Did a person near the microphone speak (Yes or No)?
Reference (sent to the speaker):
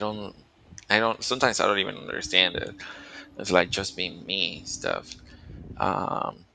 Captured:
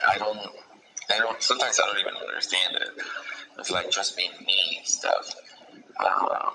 No